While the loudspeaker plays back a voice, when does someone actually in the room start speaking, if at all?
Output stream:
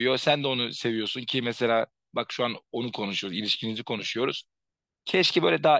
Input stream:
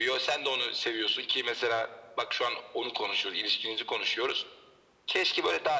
none

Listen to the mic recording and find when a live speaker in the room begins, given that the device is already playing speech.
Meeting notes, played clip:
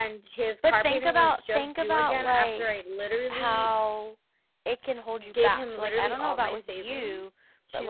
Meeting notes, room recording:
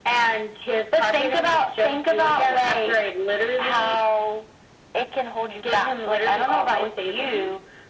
none

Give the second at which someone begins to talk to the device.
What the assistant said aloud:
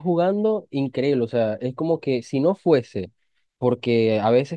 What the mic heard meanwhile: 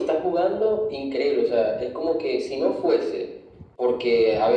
none

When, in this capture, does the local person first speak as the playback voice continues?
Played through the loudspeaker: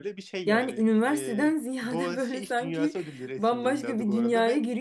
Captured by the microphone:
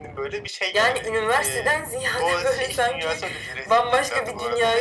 none

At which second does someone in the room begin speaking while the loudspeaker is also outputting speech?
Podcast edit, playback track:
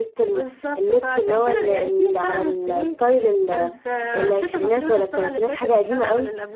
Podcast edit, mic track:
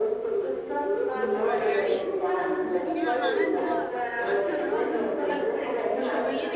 1.1 s

